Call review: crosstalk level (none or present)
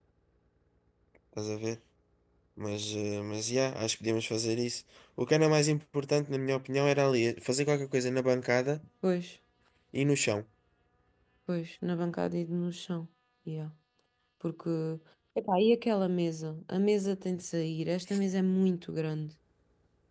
none